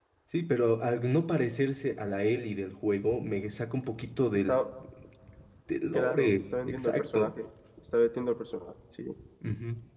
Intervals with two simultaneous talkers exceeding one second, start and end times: 5.9-7.4

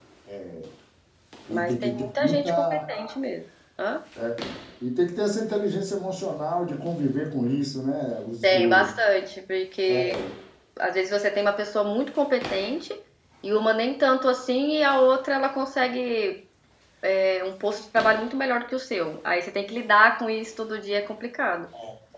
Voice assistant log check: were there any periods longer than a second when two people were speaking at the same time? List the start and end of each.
1.5-2.8

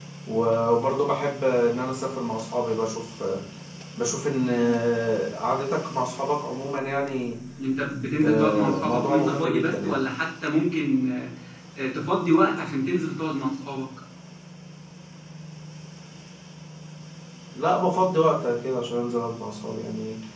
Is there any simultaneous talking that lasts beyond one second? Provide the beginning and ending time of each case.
8.2-10.0

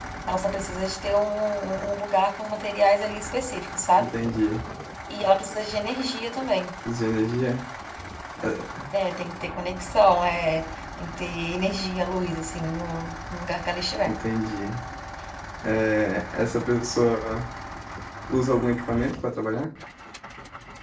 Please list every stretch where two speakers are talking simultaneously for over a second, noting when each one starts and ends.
none

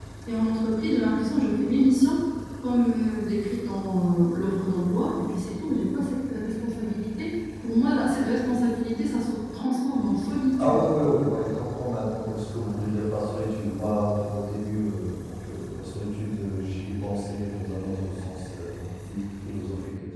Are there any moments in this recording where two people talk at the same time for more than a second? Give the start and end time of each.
none

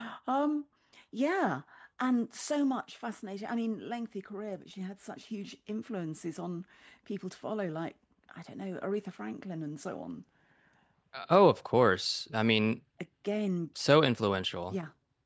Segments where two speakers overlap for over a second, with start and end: none

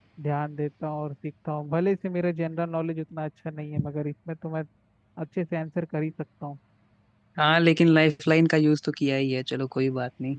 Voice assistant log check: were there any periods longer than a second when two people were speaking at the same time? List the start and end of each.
none

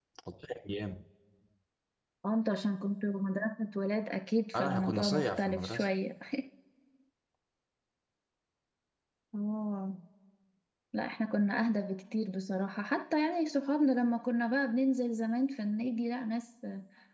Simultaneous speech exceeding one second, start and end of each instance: 4.5-5.8

